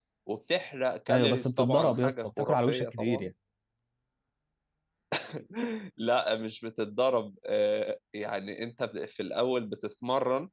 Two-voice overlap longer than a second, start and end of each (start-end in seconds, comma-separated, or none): 1.1-3.3